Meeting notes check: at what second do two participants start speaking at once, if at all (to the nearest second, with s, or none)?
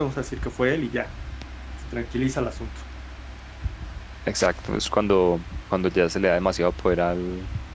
none